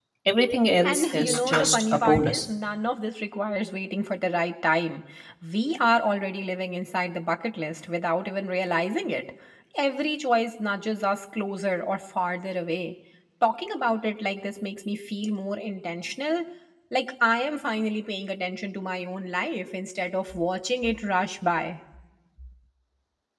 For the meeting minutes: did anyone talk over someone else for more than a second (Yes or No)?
Yes